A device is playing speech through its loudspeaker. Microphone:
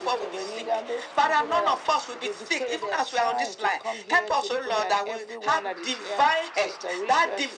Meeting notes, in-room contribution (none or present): none